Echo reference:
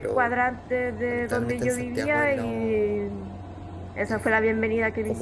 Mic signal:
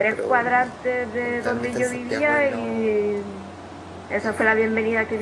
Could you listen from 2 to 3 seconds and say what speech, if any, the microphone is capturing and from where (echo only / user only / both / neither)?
echo only